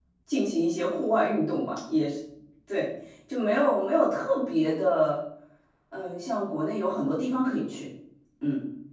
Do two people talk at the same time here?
No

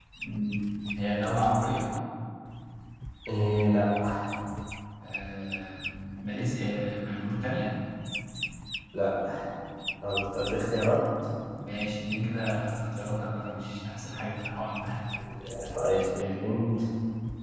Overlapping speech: No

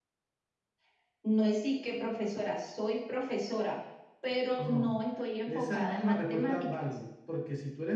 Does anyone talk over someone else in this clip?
Yes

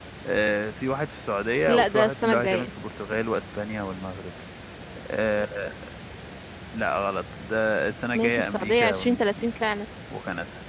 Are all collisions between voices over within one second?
No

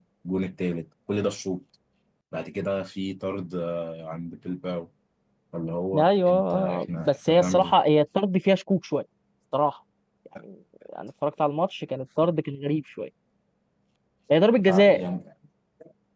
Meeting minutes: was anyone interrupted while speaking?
Yes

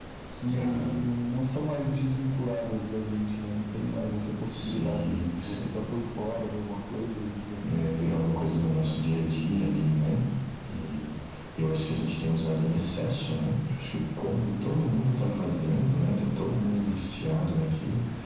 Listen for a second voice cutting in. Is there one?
Yes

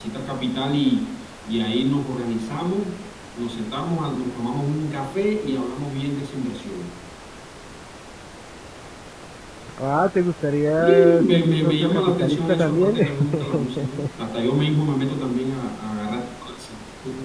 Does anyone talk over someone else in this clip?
Yes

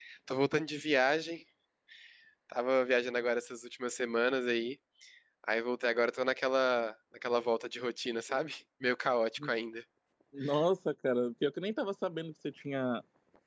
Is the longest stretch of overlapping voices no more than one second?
Yes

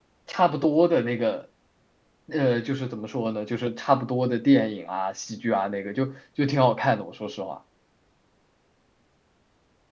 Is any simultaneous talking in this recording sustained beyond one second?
No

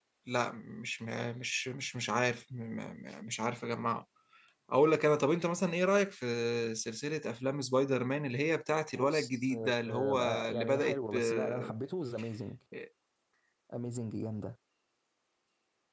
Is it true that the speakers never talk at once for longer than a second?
No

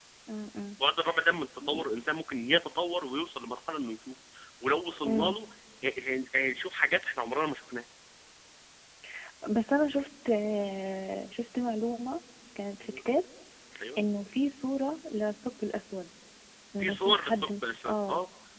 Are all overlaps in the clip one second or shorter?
No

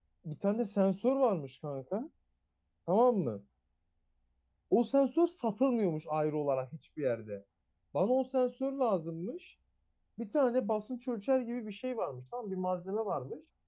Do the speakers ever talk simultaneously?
No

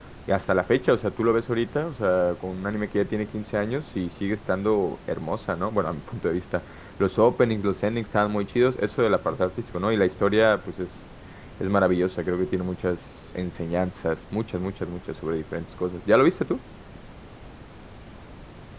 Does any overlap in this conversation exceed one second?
No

